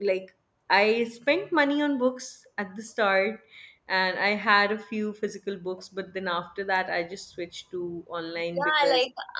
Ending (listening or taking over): taking over